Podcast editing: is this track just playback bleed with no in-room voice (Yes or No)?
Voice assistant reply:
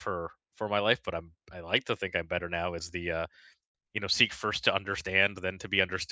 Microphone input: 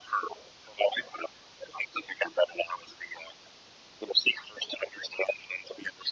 Yes